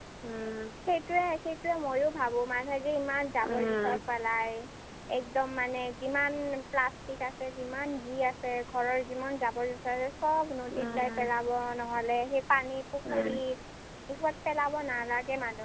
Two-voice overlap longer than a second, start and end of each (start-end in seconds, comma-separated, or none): none